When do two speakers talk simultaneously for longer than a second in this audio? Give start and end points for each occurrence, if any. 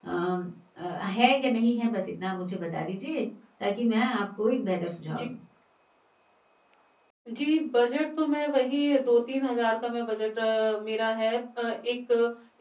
none

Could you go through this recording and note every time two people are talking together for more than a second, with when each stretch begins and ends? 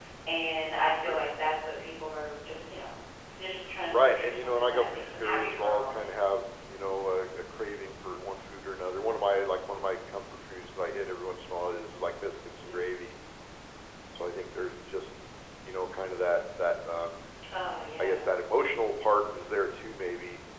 3.9-6.1

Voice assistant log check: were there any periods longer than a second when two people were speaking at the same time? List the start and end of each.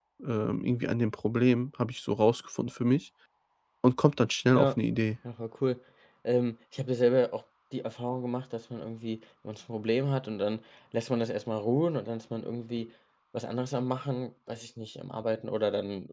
none

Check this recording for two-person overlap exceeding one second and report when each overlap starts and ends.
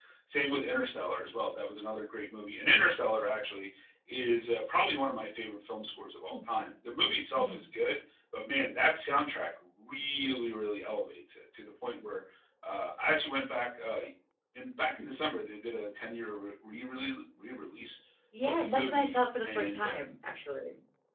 18.4-19.9

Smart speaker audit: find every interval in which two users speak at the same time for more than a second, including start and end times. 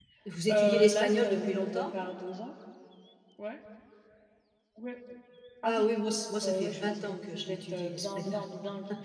0.5-1.9, 6.4-8.4

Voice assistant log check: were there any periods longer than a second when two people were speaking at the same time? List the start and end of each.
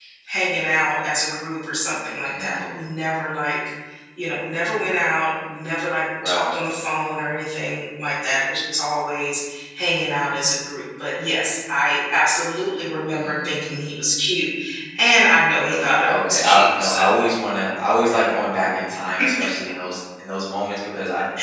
15.6-17.0

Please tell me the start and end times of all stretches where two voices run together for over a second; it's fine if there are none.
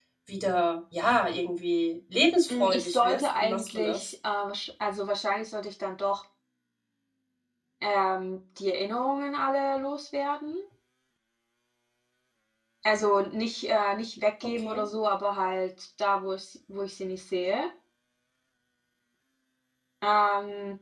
2.5-4.1

